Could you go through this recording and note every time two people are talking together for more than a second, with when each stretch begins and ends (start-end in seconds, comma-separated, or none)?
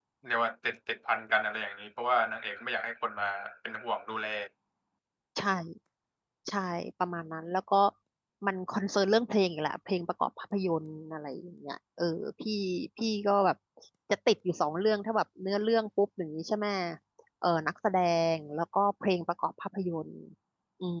none